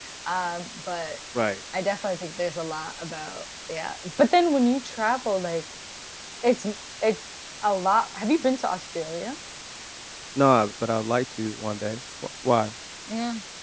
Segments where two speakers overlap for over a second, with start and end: none

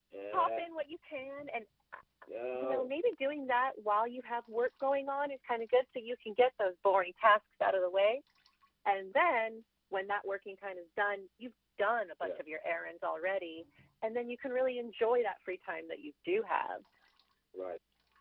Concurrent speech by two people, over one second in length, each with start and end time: none

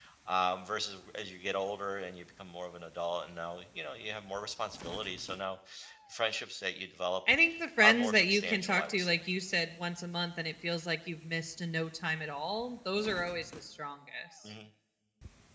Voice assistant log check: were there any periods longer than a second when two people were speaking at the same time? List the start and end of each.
7.8-9.2

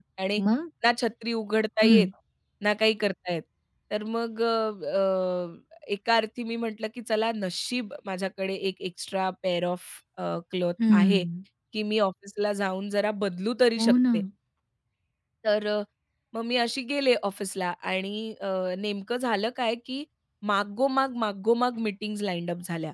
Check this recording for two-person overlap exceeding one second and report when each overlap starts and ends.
none

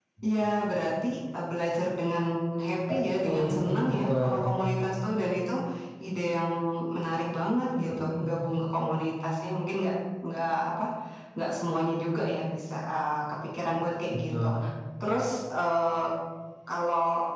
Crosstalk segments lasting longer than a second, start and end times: 2.9-4.3

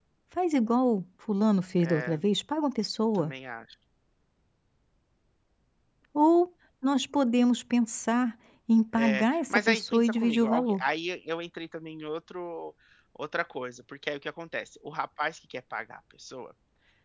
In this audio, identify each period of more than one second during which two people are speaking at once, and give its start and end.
8.9-10.8

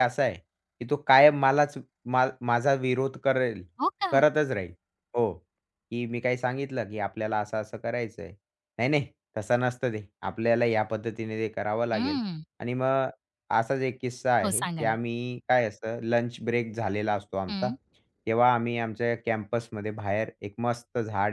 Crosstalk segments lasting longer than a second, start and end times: none

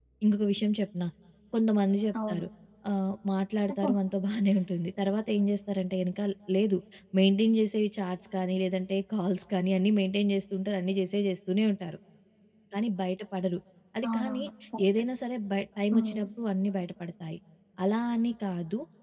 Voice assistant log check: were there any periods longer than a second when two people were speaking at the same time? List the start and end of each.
none

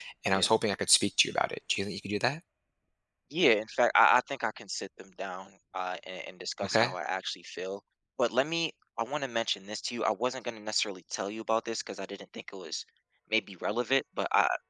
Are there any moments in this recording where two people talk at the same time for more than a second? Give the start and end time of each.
none

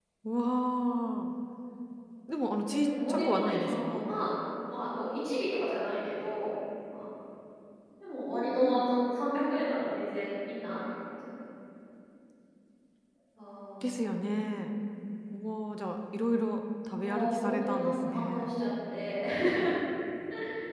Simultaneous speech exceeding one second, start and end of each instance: 2.6-4.0, 17.0-18.5

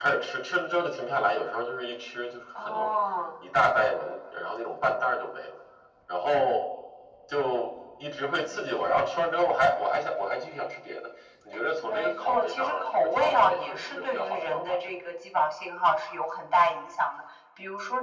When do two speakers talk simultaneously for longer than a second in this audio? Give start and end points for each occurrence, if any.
11.8-15.0

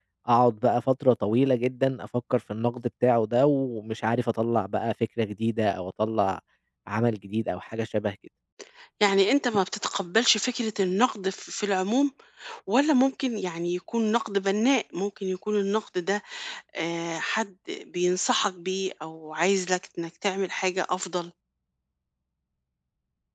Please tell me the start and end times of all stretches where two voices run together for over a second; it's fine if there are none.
none

